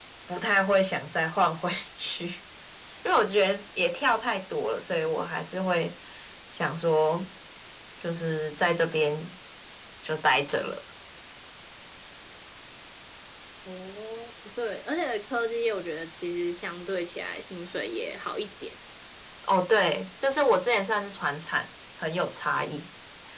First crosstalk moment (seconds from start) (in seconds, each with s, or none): none